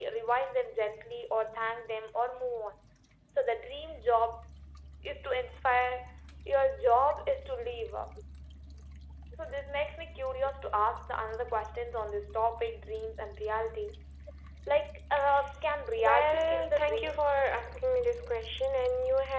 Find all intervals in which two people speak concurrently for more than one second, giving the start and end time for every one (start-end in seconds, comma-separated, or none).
16.0-17.4